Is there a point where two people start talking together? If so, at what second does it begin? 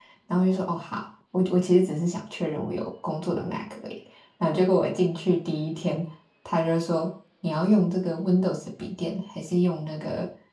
none

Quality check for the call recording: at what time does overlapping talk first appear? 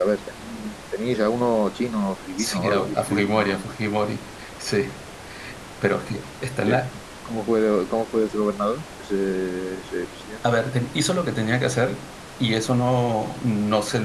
2.4 s

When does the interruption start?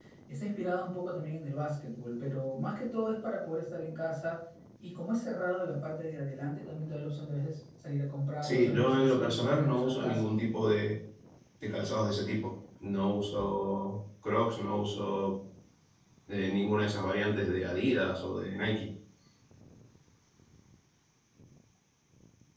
8.4 s

